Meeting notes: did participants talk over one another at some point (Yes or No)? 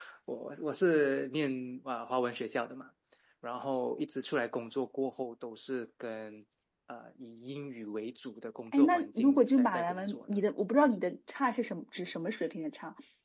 Yes